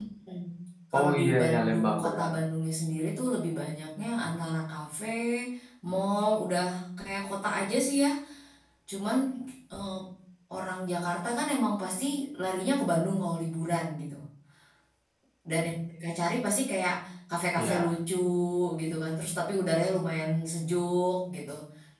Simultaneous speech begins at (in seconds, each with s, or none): 1.0 s